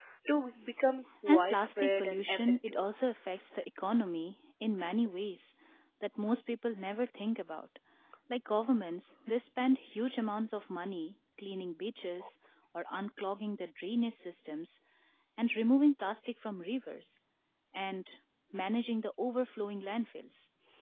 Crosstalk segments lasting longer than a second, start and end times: 1.3-2.9

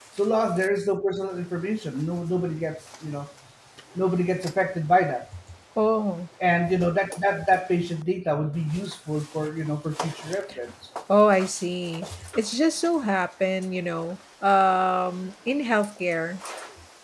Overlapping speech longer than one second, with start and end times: none

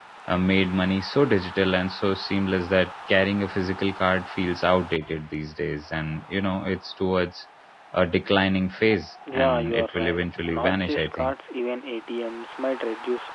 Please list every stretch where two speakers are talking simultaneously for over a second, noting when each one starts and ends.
9.3-11.3

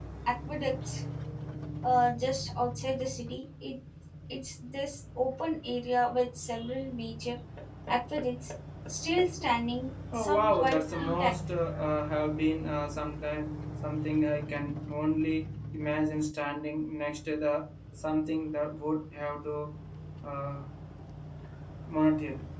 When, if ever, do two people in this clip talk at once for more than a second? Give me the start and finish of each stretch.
10.1-11.3

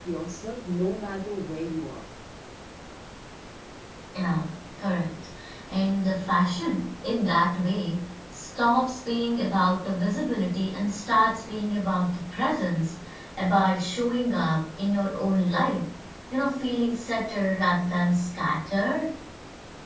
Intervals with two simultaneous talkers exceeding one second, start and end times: none

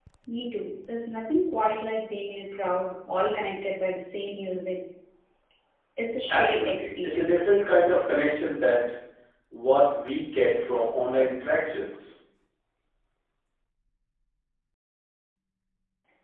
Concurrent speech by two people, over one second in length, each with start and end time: 6.3-7.5

